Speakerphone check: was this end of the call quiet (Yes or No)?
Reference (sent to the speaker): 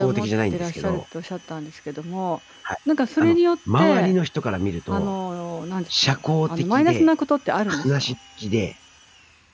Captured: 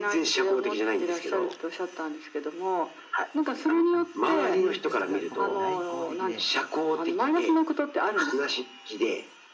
No